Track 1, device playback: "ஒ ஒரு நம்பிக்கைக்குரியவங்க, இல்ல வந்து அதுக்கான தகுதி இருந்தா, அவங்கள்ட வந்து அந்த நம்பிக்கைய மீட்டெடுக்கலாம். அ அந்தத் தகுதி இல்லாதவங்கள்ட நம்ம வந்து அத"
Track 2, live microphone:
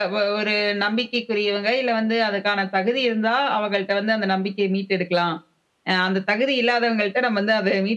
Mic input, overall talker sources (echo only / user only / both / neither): echo only